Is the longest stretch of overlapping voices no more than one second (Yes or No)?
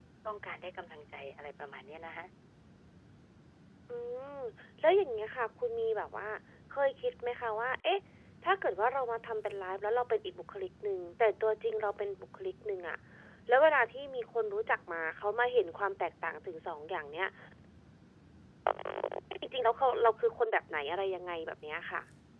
Yes